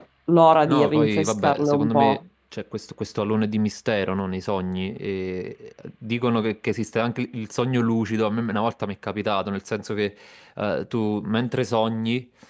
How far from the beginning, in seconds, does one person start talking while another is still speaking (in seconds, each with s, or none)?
0.6 s